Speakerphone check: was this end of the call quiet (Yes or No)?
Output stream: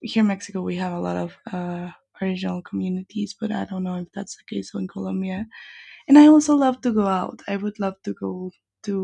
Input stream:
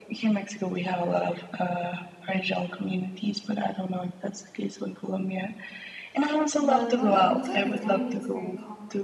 No